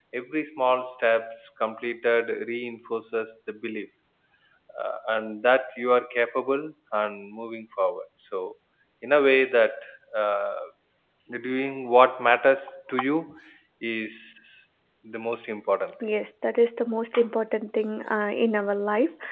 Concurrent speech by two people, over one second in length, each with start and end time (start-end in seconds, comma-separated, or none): none